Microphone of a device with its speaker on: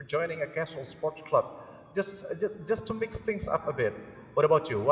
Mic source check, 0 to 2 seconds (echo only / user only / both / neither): user only